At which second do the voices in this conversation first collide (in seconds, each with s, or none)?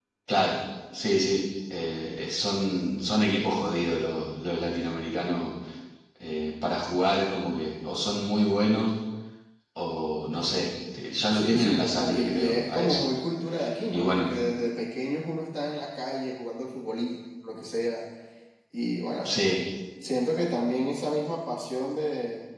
11.3 s